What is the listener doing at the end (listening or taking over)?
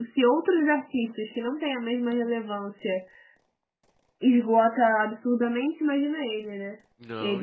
taking over